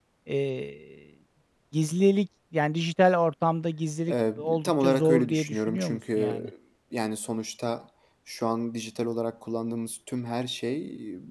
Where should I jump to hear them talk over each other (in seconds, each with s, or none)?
4.1 s